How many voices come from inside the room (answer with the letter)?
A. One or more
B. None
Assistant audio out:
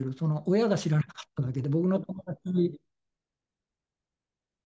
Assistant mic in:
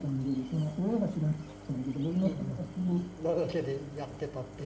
A